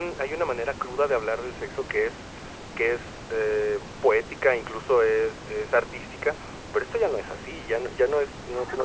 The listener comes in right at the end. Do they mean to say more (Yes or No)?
No